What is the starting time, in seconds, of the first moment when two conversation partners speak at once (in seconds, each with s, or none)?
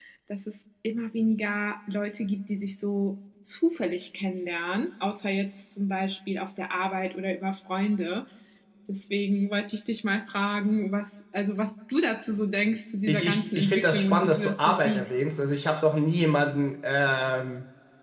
13.1 s